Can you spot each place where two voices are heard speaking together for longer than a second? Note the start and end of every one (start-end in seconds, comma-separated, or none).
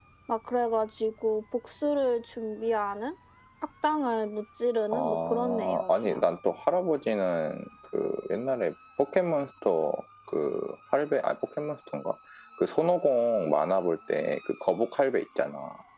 4.9-6.2